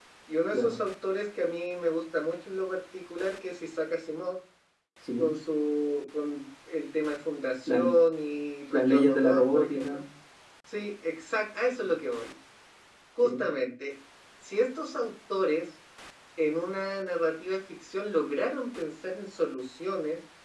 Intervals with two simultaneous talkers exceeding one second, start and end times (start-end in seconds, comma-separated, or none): 8.7-10.0